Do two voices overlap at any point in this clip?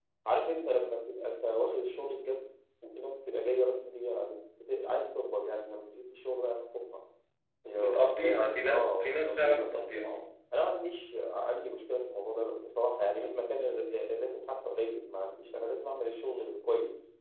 Yes, from 7.8 s

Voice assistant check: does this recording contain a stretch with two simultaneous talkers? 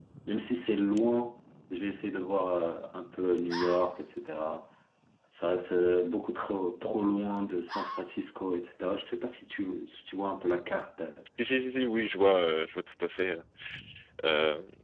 No

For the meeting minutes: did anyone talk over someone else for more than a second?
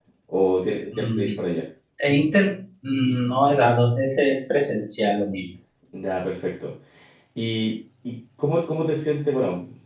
No

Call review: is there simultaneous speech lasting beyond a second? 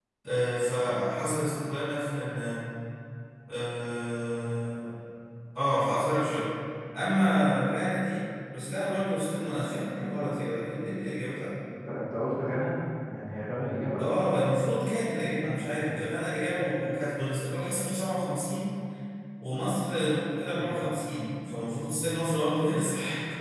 No

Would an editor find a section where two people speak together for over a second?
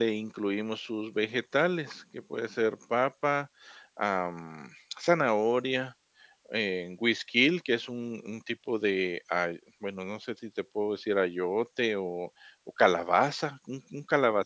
No

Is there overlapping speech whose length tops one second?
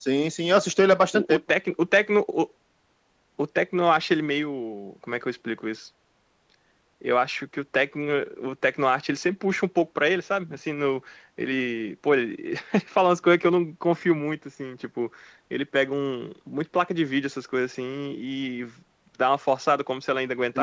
No

